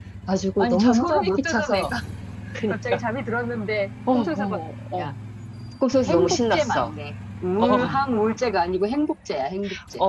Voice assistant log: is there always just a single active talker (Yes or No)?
No